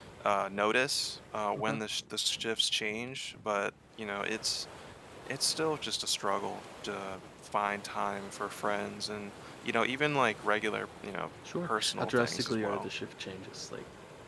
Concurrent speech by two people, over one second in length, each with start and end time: 11.6-12.9

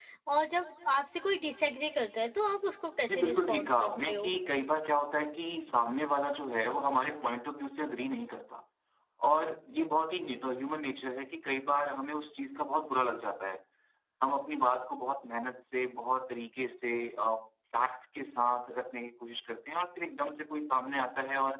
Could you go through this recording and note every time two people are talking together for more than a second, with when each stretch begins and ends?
3.1-4.3

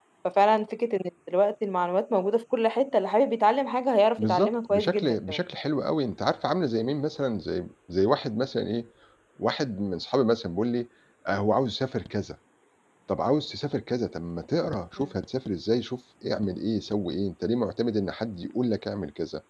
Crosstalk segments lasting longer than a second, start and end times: 4.2-5.4

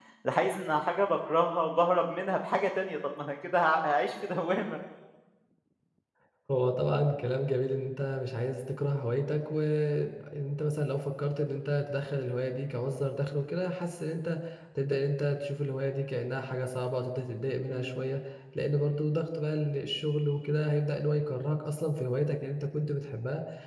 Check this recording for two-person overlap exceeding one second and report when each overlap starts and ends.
none

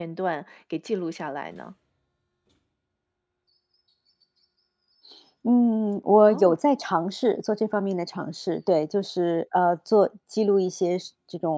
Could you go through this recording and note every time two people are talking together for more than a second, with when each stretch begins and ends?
none

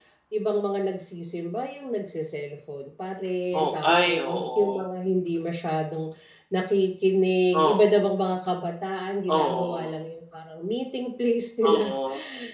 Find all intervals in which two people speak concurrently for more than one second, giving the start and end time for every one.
3.6-4.8

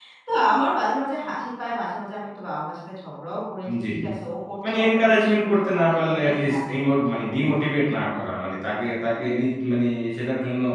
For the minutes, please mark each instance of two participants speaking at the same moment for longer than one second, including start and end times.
4.7-7.7

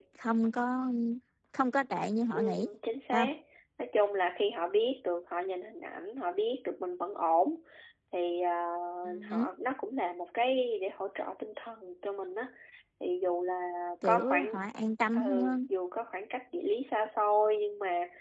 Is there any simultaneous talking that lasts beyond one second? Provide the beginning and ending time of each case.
none

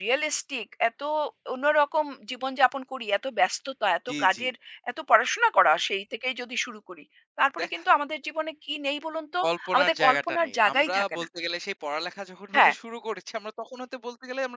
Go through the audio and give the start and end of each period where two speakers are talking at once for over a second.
9.4-11.2

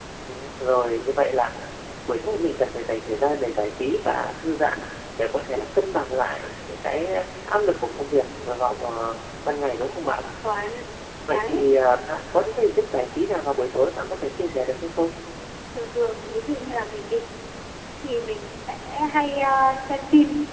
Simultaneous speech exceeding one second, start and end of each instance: none

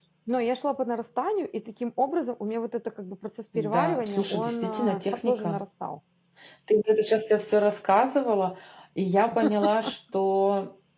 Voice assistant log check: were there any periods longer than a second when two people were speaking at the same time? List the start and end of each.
3.6-5.6

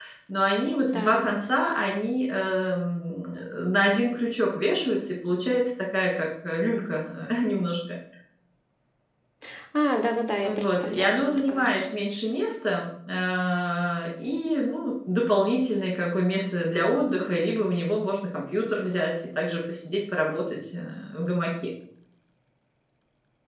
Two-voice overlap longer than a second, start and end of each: 10.4-11.8

